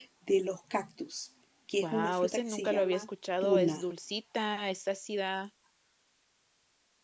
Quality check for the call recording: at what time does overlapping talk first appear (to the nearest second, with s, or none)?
2 s